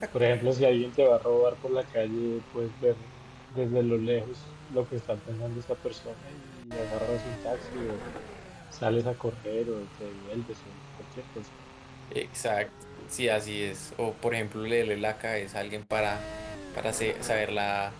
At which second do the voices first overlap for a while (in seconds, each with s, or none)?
none